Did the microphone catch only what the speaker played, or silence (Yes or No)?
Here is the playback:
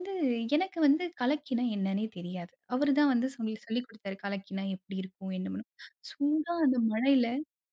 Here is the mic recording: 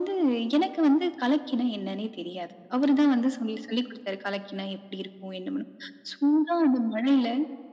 Yes